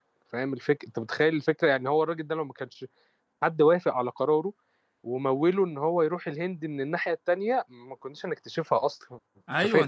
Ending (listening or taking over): taking over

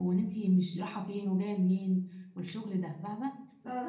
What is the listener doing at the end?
listening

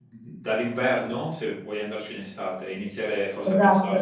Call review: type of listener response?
taking over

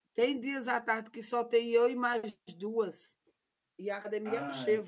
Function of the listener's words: listening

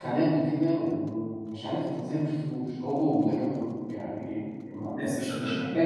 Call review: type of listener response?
listening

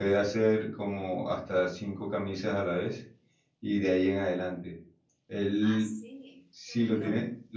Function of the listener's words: listening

